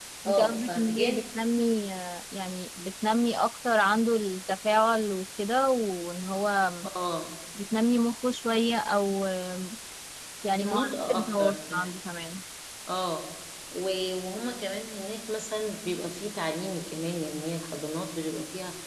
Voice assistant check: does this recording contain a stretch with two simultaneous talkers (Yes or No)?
Yes